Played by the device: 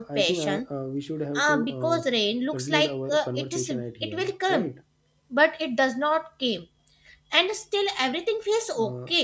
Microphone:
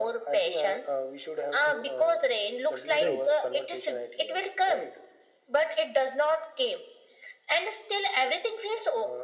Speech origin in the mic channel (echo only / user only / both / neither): both